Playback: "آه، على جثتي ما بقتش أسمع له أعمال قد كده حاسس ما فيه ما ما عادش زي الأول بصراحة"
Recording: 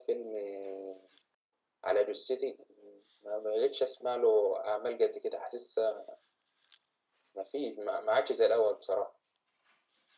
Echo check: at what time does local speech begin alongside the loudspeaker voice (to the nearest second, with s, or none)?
none